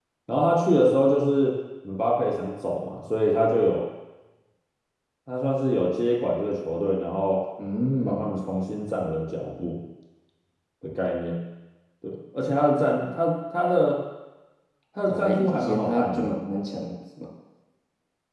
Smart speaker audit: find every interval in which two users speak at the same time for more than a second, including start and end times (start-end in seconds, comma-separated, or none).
15.1-16.3